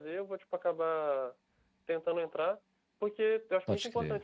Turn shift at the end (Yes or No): No